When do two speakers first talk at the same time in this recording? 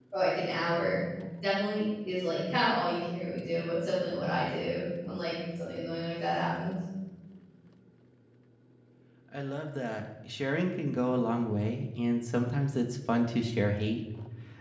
none

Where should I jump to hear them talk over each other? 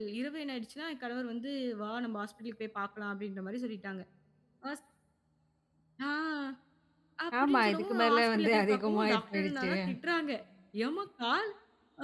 7.4 s

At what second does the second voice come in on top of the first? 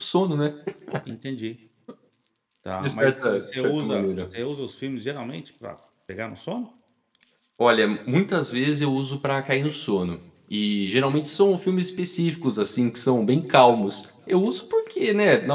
2.8 s

